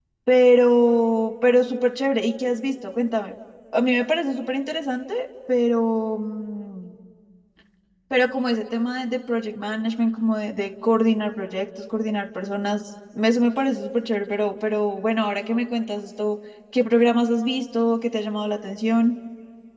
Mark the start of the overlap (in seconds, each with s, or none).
none